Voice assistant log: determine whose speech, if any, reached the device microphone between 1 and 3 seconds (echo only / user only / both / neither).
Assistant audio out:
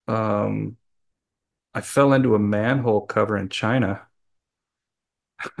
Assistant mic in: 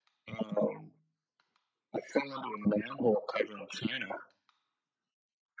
echo only